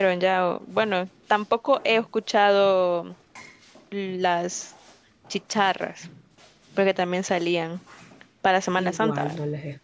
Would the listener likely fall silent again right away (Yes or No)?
No